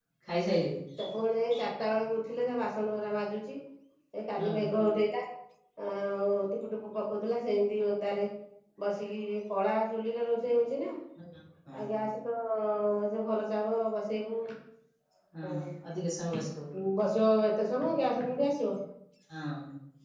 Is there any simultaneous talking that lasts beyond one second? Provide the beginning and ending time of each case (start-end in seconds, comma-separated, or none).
none